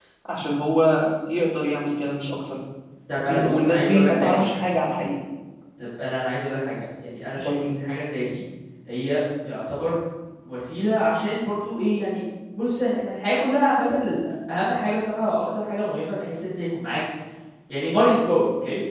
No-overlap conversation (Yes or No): No